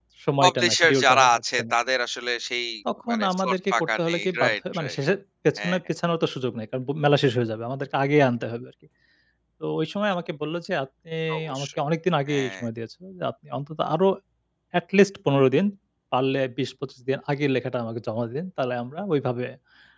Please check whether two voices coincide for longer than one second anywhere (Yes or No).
Yes